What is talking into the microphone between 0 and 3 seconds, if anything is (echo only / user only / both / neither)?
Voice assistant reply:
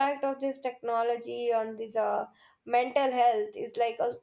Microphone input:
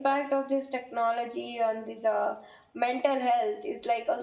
echo only